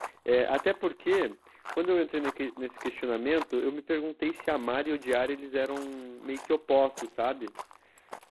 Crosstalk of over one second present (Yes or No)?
No